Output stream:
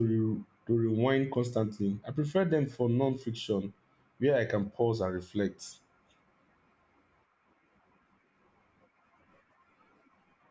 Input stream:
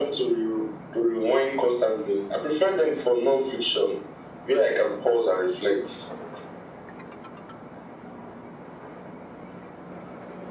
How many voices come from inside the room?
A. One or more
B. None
B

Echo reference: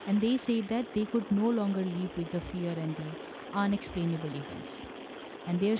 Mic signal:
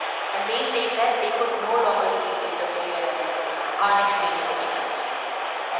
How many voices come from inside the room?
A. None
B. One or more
A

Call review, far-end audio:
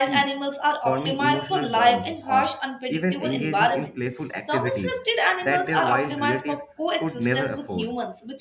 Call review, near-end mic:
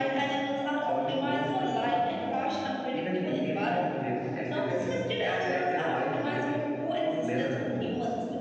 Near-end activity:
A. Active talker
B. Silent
B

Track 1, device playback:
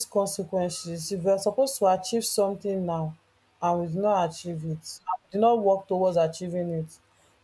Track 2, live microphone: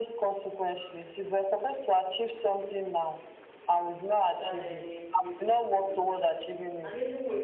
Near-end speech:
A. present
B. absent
A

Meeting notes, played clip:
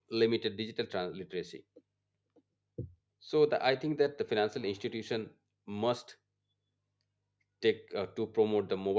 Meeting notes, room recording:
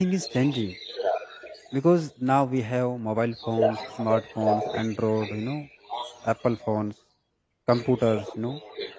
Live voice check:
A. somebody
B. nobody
A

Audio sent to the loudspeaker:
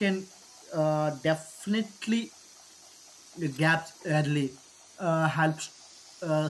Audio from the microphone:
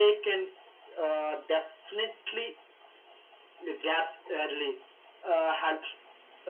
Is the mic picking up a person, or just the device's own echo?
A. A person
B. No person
B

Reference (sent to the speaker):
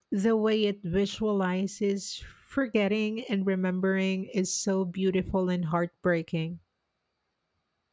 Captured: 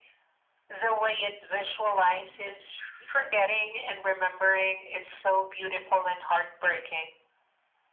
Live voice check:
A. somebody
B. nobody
A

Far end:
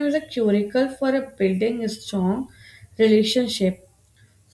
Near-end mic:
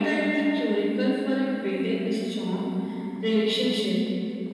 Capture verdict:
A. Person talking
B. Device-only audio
B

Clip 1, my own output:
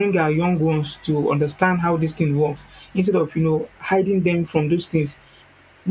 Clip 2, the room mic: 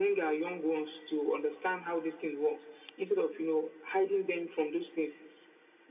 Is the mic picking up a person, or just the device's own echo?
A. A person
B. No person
B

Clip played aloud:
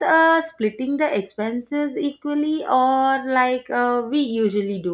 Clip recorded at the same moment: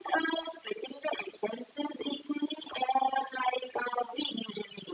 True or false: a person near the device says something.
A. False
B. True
A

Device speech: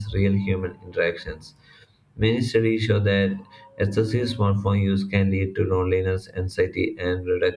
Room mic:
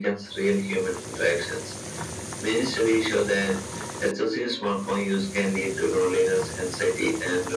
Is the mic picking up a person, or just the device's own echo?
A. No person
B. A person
A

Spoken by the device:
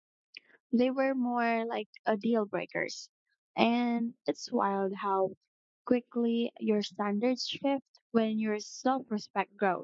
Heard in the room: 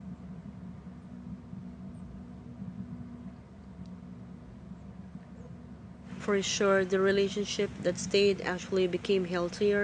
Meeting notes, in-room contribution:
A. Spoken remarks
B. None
A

